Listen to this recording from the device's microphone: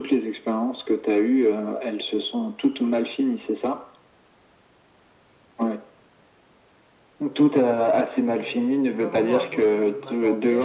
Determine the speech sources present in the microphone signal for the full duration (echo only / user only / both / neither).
both